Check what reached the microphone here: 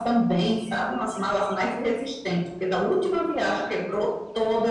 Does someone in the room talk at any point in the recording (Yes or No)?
No